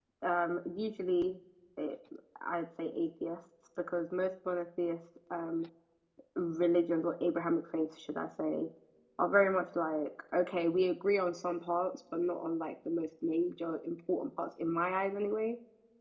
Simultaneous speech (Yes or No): No